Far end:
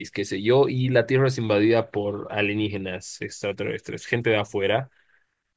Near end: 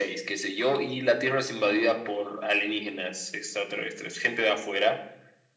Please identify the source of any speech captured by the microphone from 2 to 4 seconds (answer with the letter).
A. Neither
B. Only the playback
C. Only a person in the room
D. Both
B